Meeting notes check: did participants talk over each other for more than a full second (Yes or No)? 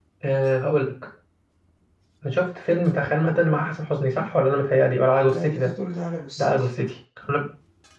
No